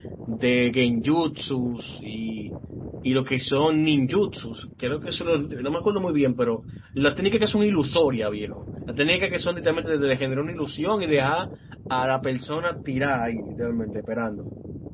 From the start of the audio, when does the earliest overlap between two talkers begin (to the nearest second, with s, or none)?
none